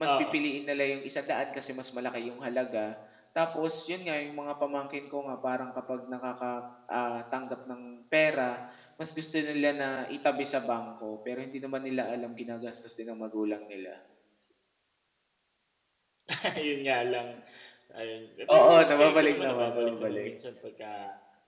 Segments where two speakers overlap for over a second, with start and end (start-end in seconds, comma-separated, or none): 18.6-20.3